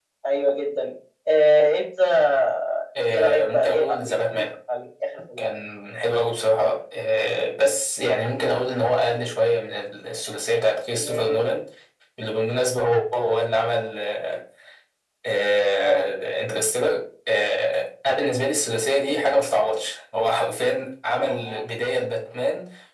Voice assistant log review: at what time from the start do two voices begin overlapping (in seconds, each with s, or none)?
3.1 s